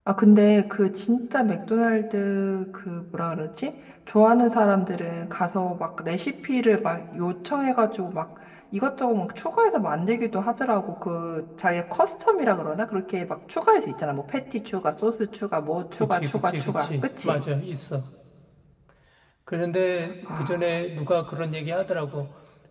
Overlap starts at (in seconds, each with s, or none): 16.0 s